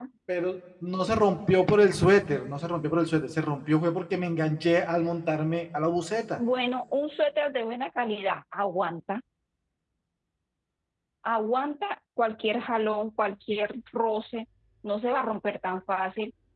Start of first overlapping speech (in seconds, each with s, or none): none